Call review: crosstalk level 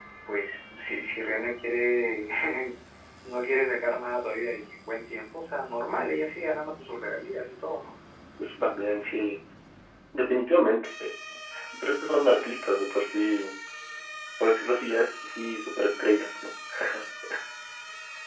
none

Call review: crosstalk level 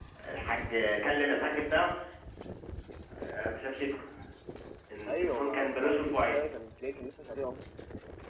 present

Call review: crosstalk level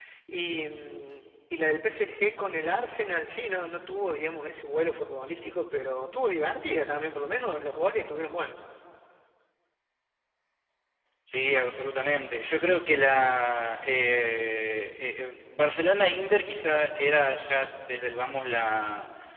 none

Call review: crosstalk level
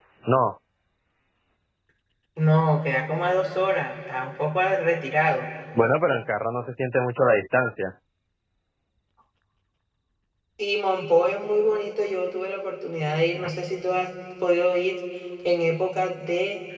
none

